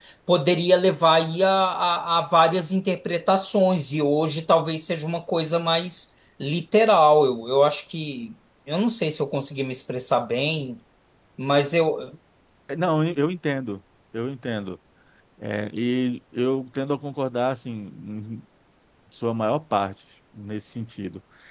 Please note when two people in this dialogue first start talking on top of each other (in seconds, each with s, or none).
none